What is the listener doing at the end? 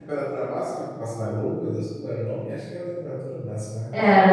listening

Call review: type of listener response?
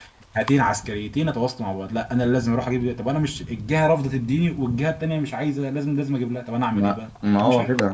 taking over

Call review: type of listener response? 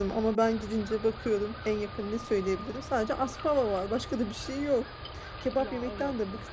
listening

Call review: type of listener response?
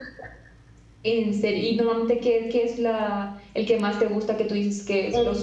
taking over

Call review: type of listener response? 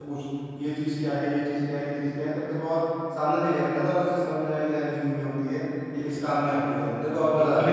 taking over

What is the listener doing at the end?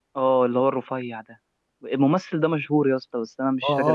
taking over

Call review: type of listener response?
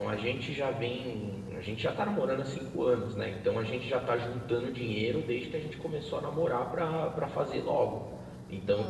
listening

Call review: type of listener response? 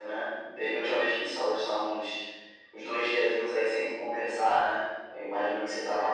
listening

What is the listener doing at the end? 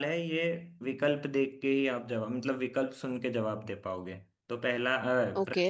listening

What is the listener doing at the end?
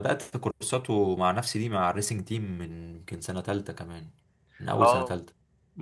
taking over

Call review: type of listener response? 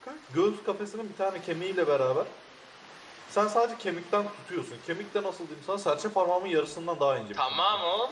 taking over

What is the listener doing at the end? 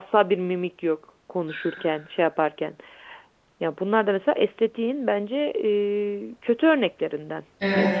taking over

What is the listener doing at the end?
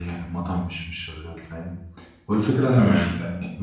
listening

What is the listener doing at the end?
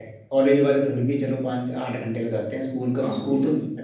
taking over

